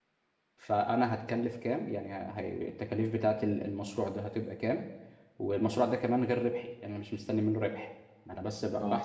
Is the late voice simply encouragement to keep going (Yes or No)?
Yes